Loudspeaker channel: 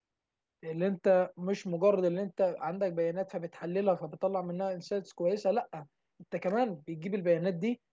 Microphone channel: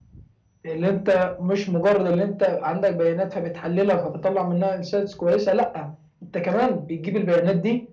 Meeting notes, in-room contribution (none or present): none